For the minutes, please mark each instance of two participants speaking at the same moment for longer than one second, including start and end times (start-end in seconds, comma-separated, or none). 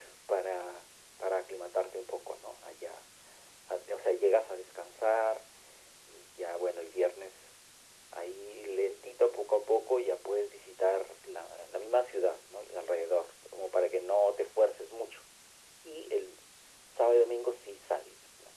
none